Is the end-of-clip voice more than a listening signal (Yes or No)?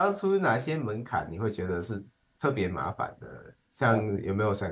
No